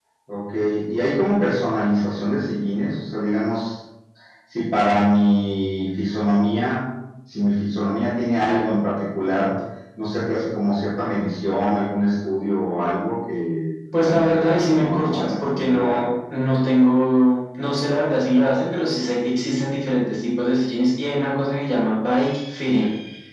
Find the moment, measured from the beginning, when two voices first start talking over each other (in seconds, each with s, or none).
13.9 s